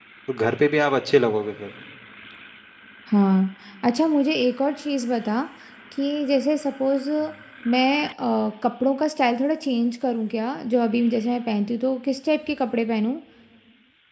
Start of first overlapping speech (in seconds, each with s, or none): none